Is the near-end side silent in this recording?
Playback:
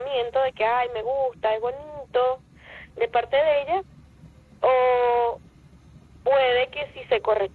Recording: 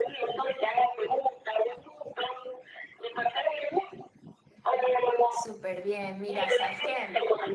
No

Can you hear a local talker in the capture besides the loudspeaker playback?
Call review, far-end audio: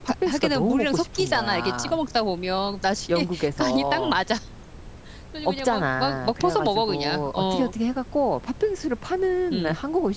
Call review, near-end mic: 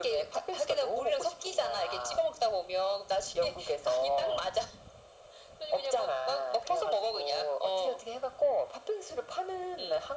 No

